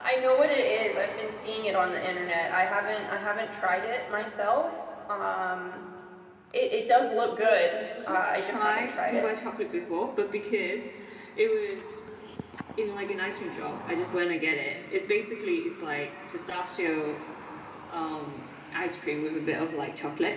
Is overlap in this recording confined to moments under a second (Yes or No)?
No